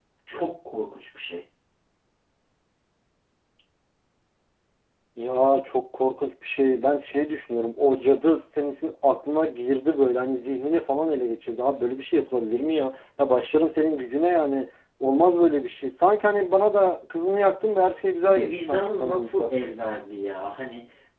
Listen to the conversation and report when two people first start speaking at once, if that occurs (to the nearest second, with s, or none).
18 s